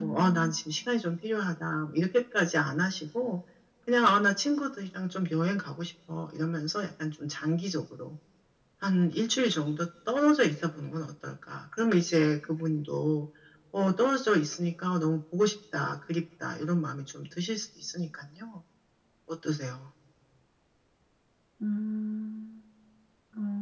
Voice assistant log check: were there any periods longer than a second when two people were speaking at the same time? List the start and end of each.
none

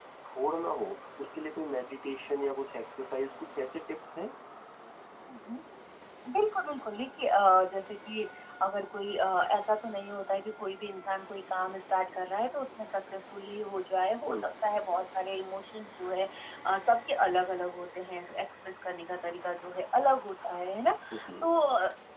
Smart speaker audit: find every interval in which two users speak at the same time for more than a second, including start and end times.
none

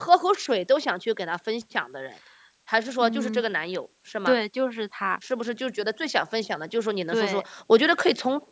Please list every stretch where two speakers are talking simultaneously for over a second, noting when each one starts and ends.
none

